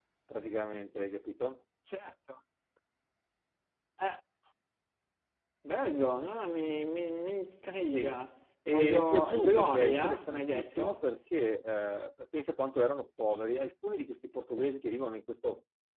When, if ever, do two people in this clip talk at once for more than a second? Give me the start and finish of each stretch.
8.7-11.1

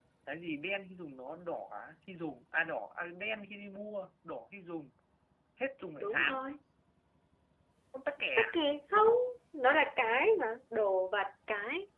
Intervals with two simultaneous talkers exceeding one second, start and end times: none

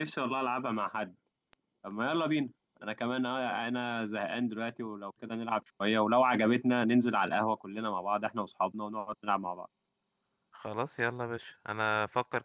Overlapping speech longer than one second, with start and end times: none

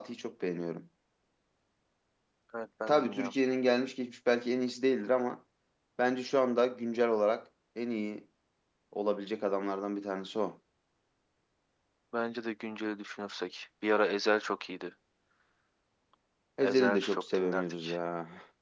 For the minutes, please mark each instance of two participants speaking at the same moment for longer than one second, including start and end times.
16.6-18.0

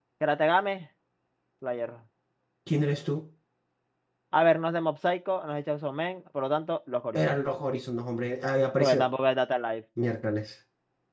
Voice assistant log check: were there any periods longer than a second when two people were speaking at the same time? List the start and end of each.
none

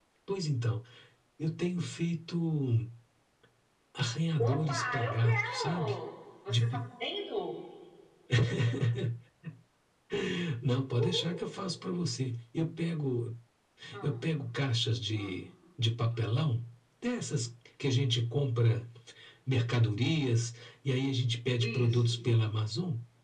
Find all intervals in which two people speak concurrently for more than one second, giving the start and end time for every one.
4.4-6.0

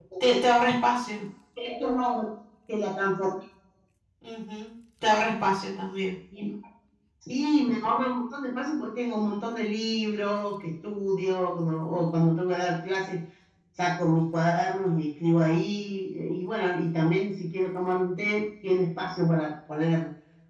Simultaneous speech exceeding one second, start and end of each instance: none

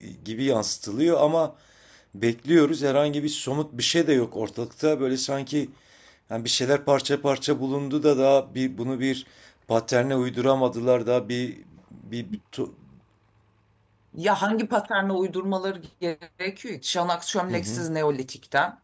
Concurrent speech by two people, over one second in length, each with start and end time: none

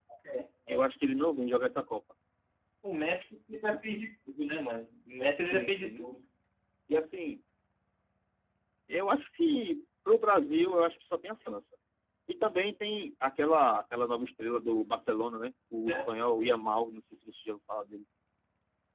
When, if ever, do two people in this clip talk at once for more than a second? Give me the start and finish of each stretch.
none

